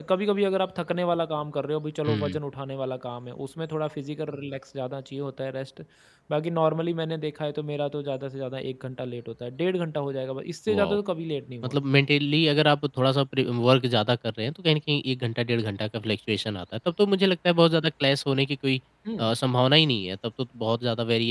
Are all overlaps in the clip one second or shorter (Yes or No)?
Yes